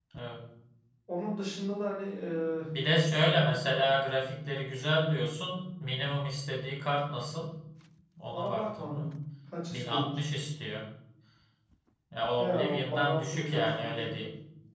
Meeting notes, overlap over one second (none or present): present